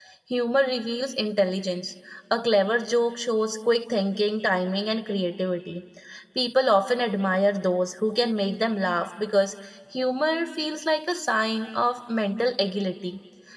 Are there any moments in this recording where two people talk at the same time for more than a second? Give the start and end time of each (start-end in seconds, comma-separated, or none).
none